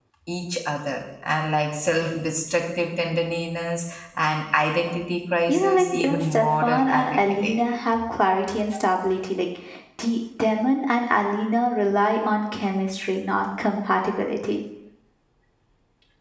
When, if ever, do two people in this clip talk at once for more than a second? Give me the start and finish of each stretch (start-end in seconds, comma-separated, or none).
5.5-7.5